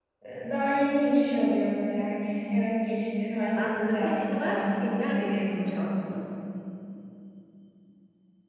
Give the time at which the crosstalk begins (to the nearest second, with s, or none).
4 s